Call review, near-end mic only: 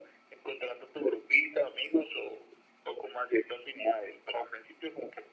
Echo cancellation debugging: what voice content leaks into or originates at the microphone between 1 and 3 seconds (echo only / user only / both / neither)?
echo only